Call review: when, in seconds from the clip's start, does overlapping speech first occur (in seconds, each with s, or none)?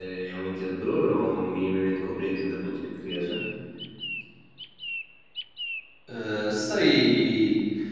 none